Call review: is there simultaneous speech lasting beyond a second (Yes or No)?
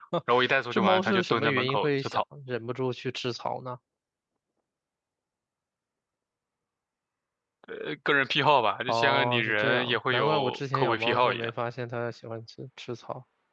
Yes